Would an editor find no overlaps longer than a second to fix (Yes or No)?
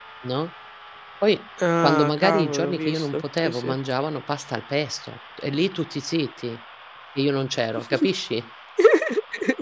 No